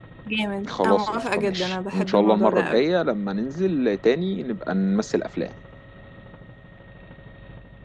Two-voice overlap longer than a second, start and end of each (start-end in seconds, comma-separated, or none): 0.8-2.8